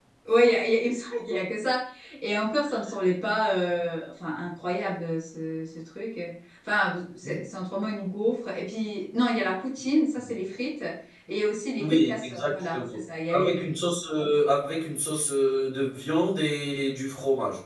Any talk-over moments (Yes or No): Yes